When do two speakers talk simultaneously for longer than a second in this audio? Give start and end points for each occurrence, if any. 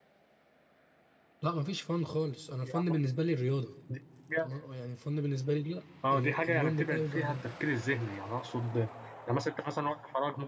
6.1-7.5

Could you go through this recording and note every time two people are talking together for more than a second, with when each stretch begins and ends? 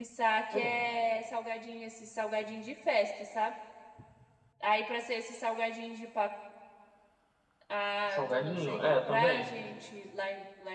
8.1-9.5

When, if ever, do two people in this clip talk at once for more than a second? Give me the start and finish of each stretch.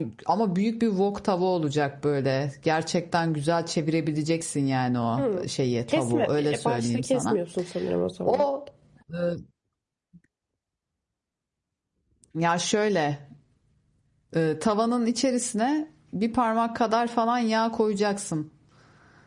5.9-7.4

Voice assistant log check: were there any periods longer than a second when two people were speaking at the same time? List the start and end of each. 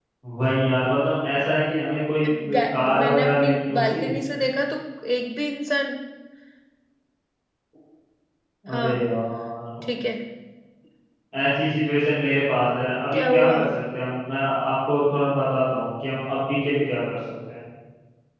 2.5-4.0

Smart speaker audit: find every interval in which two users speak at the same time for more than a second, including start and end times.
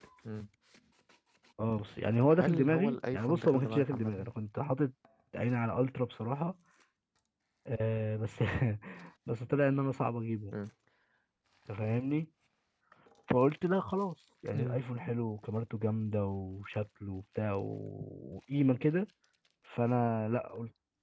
2.3-4.3

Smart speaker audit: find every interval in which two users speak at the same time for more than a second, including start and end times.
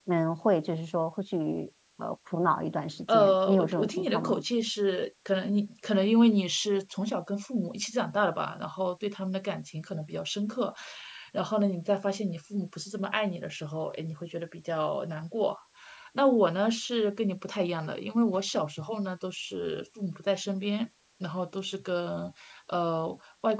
3.1-4.4

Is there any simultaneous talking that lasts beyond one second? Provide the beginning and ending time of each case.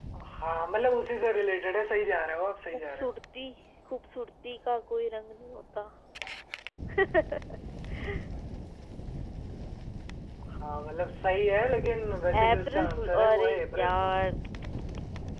12.4-14.2

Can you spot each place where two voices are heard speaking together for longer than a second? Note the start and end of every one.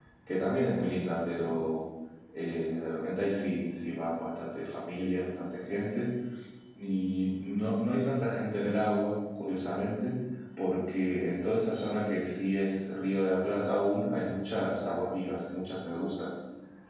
none

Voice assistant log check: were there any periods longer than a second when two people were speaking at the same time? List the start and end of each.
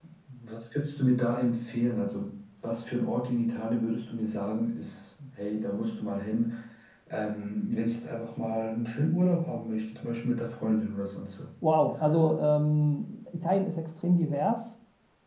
none

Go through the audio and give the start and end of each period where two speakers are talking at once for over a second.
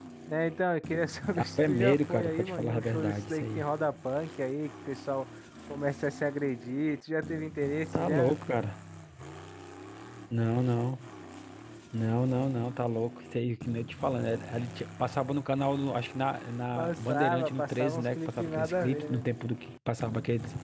1.4-3.6, 16.8-19.3

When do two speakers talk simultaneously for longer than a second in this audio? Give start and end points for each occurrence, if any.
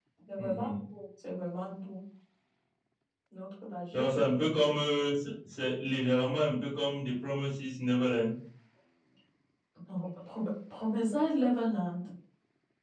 none

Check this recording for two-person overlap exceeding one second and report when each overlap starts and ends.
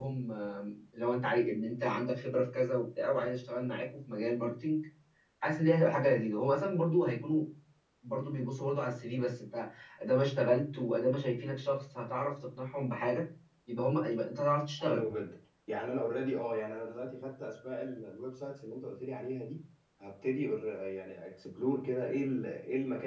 none

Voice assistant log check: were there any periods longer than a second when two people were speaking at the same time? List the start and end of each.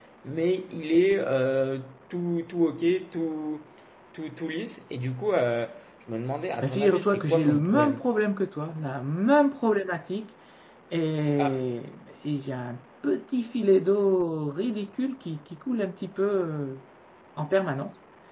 6.6-8.0

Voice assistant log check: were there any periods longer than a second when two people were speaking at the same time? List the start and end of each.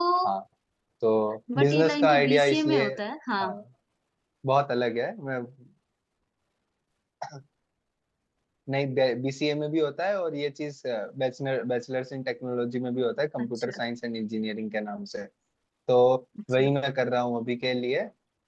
1.6-2.8

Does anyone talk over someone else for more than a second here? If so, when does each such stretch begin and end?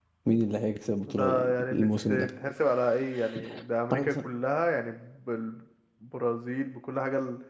1.0-2.3

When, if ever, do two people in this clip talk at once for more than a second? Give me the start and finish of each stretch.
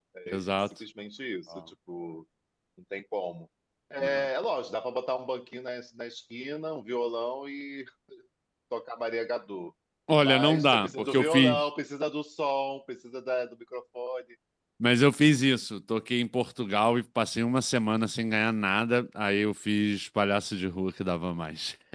10.2-11.7

